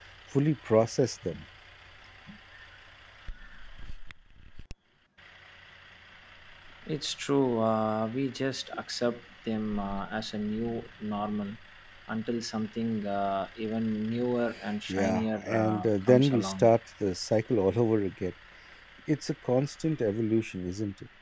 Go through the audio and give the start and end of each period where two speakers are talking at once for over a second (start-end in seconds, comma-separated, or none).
14.9-16.7